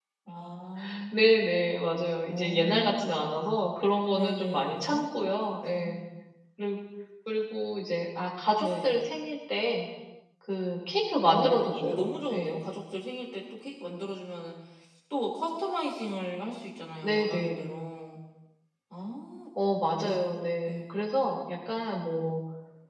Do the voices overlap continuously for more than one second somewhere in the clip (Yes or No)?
Yes